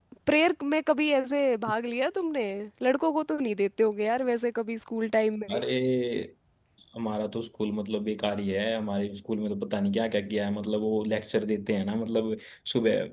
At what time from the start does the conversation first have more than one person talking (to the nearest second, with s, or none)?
none